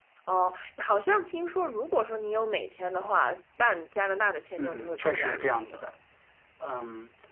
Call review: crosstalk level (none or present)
present